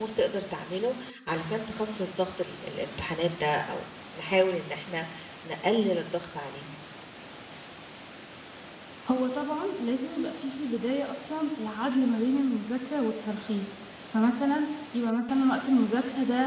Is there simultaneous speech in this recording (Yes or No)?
No